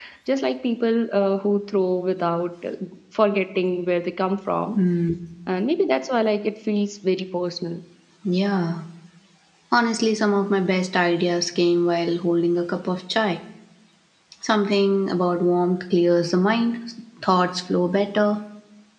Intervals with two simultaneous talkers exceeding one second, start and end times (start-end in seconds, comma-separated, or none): none